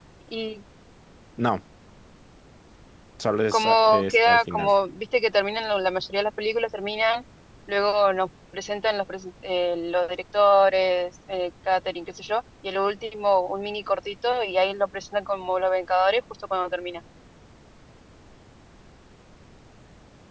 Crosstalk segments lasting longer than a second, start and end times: 3.5-4.7

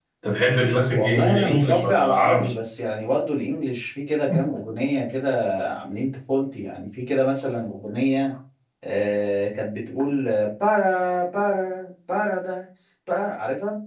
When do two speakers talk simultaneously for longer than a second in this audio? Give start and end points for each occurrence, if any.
0.9-2.6

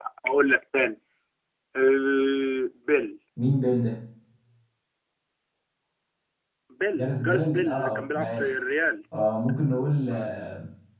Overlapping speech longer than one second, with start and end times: 6.9-8.5

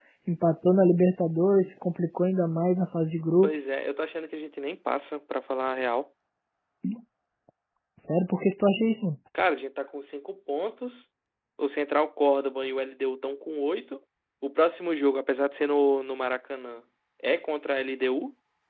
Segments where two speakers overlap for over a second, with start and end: none

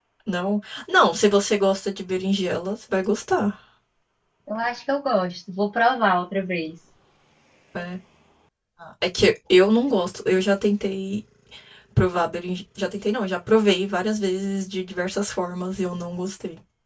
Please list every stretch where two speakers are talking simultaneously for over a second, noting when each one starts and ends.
none

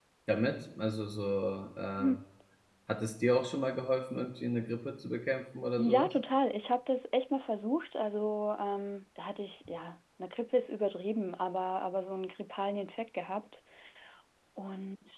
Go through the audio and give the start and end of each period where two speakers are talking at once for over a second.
none

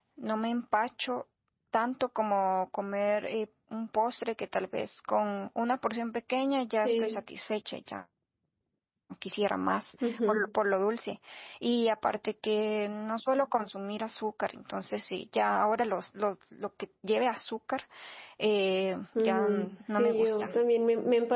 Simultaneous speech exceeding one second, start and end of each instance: 19.2-20.5

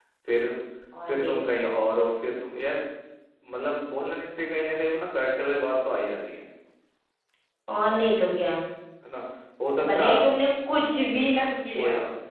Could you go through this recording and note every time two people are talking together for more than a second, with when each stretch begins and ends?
none

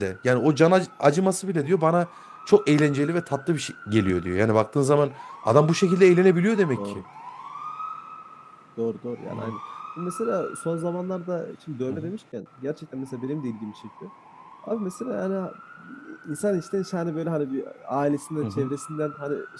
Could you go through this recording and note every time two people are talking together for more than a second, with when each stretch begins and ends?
none

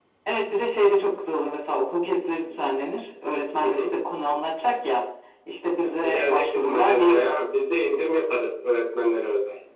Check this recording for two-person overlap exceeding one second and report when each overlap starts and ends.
6.1-7.3

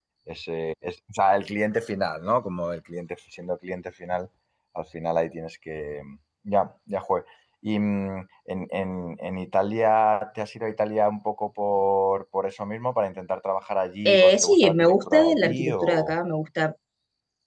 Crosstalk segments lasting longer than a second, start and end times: 14.0-16.1

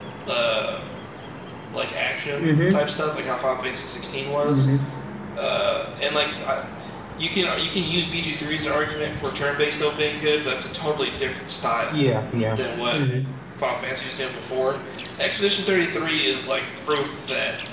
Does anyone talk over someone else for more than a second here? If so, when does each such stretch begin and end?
none

